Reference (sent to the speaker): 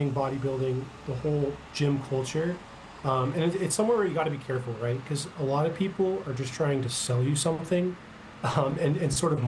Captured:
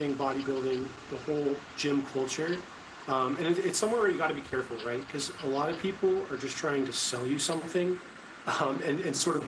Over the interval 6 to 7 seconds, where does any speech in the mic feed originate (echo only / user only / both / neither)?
echo only